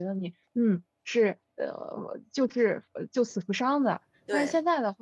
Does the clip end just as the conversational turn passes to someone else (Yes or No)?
No